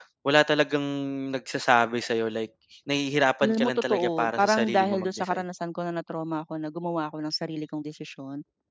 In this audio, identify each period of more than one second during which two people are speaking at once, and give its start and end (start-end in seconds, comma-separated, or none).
3.4-5.4